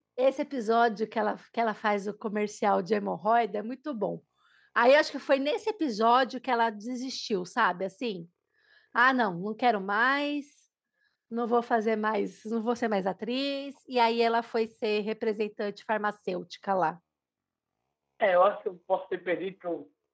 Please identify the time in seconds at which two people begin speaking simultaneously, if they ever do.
none

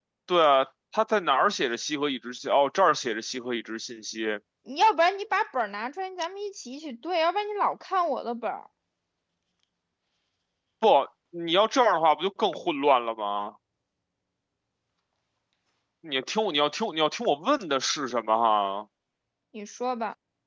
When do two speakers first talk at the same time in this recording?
none

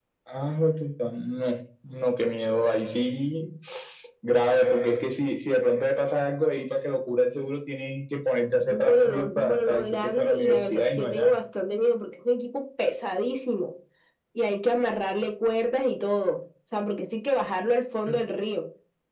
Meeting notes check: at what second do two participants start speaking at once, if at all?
9 s

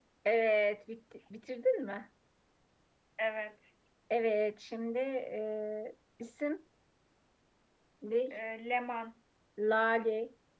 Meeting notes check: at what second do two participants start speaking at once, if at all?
none

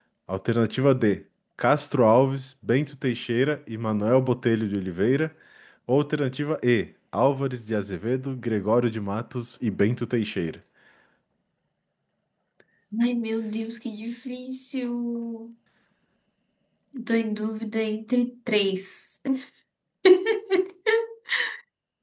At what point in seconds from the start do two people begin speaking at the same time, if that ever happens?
none

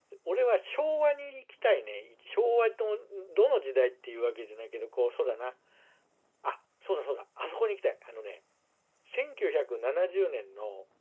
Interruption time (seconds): none

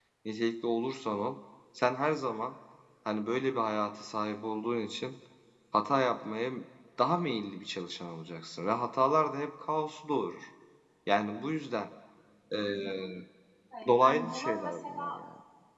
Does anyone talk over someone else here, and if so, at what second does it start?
14 s

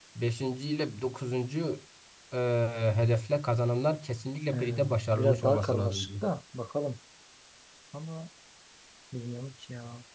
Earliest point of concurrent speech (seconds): 5 s

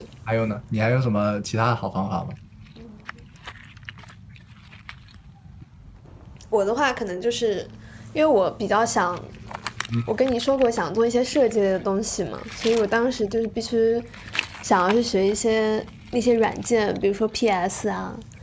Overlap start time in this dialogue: none

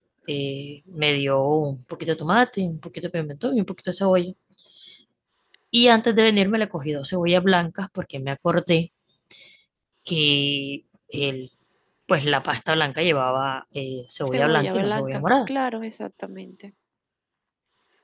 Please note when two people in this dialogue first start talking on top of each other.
14 s

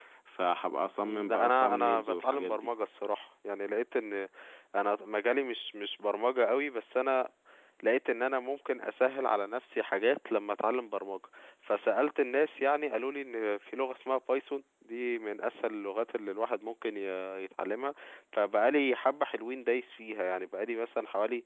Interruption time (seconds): 1 s

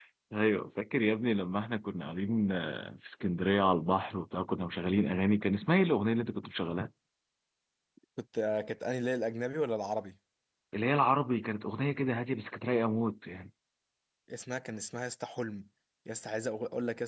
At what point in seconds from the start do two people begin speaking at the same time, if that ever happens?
none

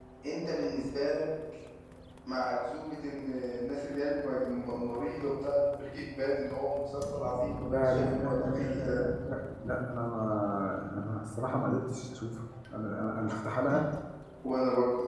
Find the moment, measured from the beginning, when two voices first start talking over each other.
8 s

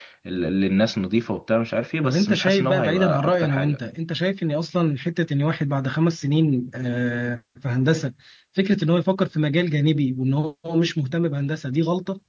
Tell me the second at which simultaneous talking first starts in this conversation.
2 s

